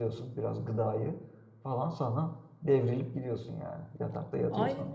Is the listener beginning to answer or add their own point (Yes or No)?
Yes